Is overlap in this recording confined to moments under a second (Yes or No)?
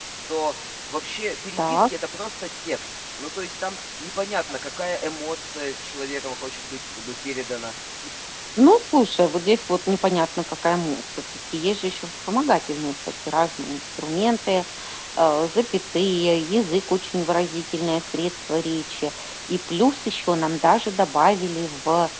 Yes